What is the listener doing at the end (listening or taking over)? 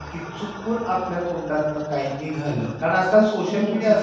listening